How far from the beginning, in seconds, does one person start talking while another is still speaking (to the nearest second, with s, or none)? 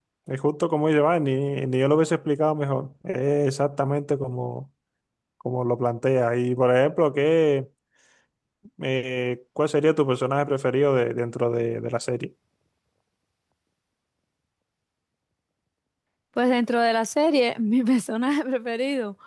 none